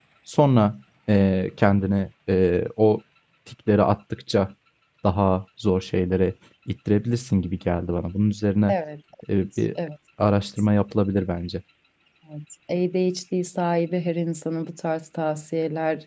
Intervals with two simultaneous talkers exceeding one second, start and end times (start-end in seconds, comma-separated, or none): none